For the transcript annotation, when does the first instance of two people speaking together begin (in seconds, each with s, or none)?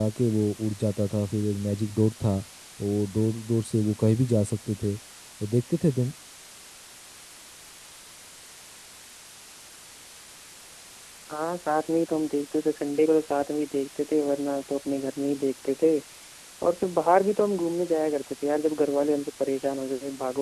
none